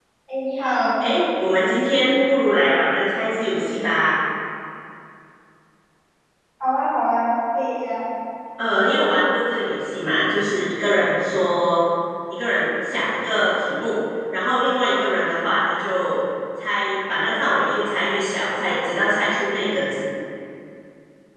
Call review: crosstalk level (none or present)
none